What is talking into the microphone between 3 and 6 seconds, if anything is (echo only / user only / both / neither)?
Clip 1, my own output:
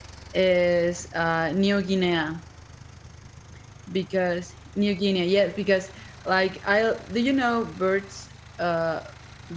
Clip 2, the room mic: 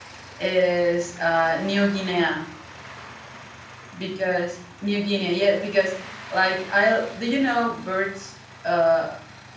echo only